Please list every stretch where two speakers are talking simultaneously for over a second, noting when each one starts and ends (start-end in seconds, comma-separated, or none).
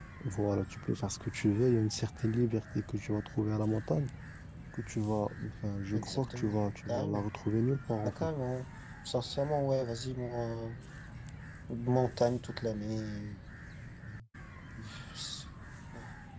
5.9-7.3